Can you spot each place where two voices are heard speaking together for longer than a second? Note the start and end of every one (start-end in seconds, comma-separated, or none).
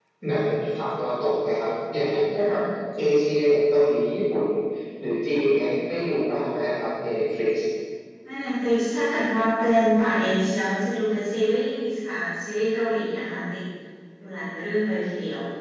none